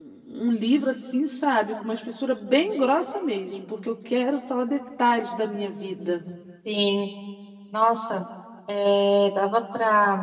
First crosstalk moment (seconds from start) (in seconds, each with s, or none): none